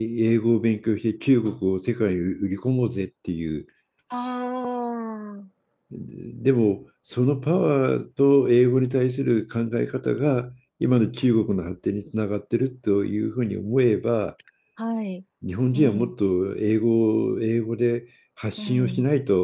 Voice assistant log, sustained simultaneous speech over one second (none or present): none